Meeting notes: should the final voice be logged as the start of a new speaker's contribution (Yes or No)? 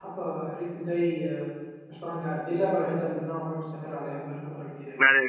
Yes